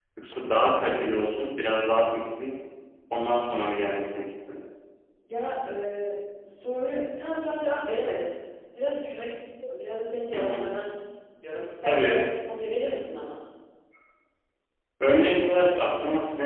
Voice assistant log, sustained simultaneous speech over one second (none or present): none